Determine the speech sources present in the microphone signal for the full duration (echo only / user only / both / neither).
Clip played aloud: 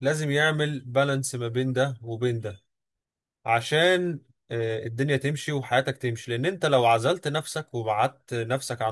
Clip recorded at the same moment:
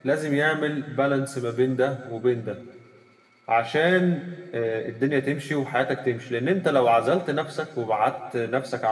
echo only